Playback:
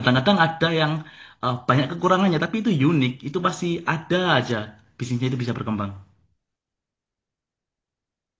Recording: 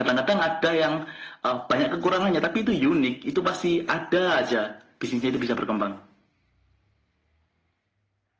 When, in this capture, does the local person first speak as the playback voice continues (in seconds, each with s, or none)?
none